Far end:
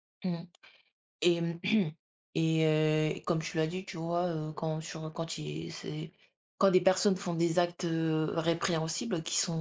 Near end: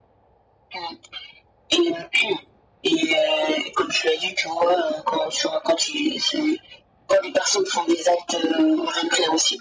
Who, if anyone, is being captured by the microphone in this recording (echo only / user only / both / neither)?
echo only